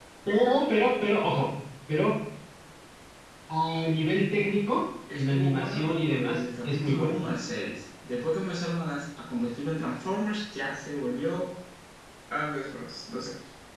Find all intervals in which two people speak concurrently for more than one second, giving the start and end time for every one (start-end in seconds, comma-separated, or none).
5.1-7.2